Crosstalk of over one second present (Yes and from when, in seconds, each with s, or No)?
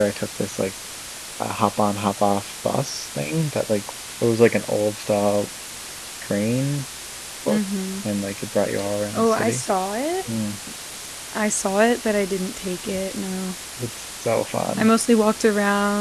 No